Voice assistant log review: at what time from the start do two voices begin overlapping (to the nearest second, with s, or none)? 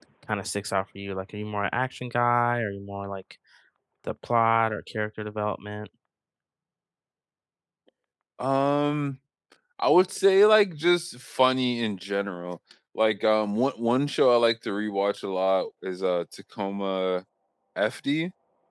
none